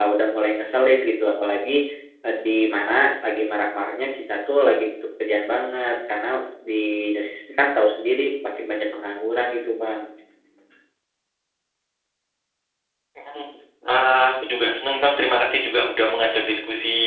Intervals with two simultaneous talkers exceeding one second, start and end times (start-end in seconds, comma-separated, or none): none